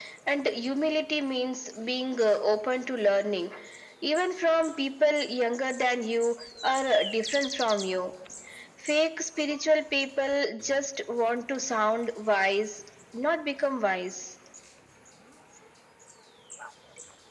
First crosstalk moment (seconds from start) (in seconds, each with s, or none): none